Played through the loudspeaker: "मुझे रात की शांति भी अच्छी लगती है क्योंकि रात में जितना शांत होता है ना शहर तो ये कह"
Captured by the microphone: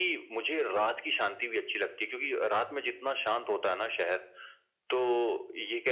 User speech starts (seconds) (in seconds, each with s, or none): none